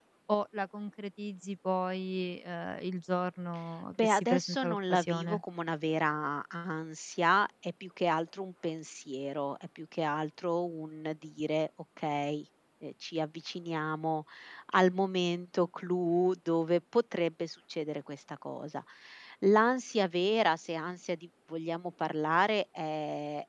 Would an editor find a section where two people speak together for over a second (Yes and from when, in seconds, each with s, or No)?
Yes, from 3.9 s